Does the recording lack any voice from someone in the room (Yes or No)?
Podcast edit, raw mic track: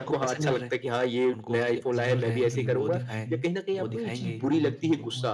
No